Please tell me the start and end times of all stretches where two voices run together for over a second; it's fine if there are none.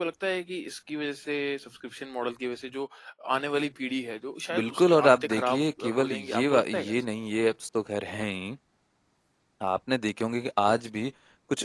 4.6-7.0

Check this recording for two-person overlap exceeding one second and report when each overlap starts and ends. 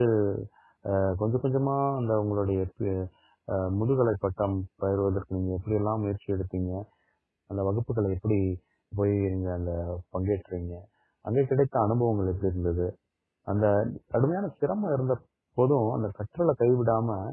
none

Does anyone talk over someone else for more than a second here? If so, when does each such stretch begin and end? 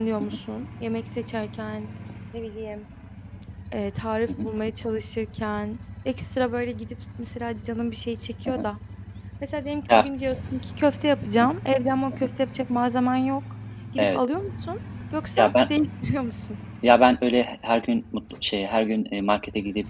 none

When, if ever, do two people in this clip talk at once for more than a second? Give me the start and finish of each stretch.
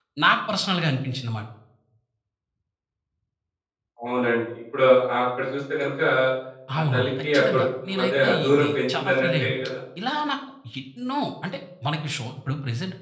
6.9-9.5

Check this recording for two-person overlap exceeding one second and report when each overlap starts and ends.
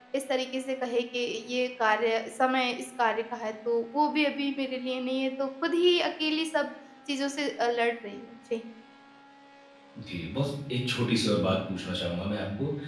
none

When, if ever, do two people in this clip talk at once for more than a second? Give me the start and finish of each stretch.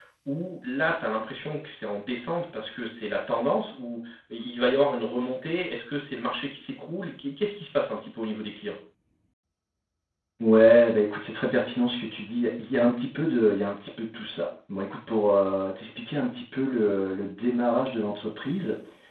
none

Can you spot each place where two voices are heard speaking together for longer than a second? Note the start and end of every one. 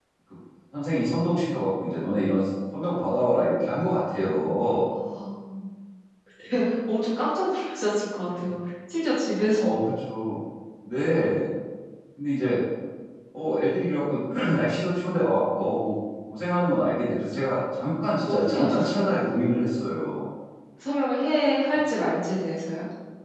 18.2-19.5

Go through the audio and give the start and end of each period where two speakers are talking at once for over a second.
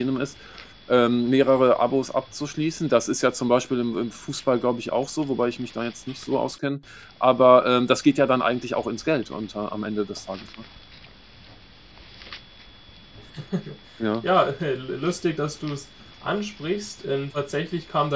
none

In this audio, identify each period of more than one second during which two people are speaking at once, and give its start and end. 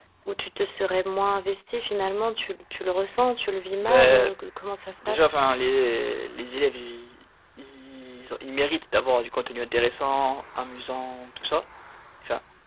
none

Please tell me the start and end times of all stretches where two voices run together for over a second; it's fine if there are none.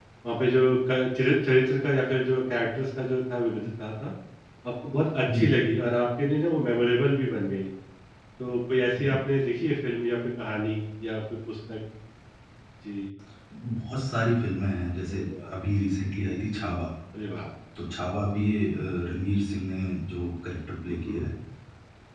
none

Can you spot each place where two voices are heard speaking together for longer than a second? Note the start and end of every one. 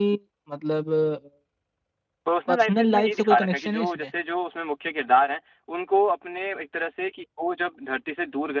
2.5-4.1

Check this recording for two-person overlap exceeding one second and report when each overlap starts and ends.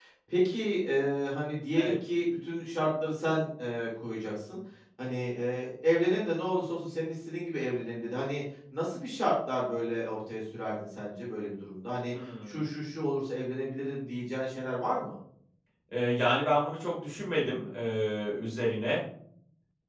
none

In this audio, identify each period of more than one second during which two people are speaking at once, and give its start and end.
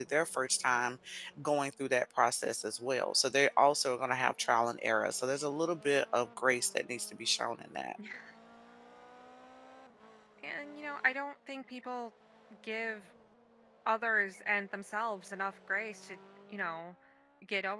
none

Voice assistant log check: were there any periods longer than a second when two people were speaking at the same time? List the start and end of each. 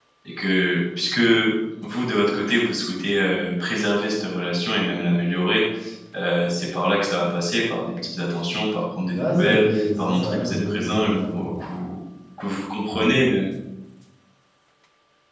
9.1-11.6

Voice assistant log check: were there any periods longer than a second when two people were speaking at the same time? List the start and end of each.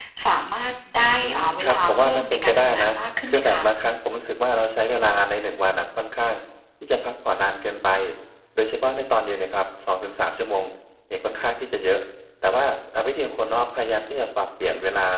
1.2-2.9

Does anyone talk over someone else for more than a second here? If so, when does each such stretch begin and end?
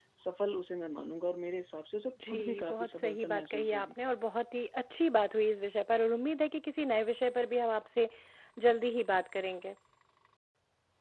2.3-3.9

